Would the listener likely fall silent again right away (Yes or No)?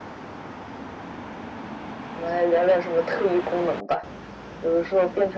Yes